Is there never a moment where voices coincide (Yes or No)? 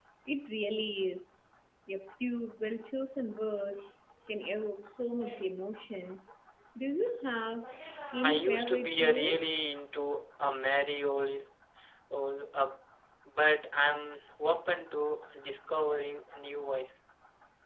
No